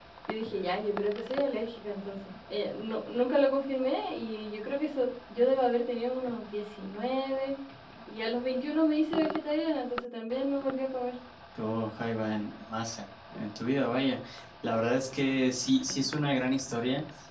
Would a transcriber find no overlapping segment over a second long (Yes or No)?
Yes